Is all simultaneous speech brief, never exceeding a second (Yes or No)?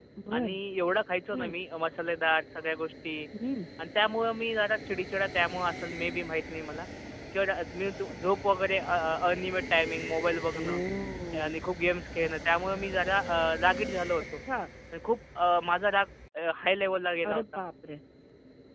Yes